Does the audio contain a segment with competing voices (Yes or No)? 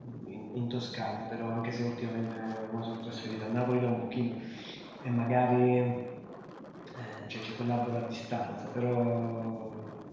No